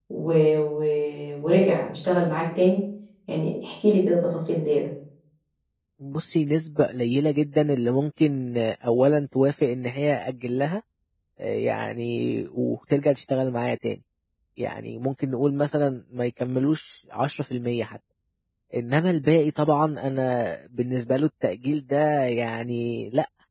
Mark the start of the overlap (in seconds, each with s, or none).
none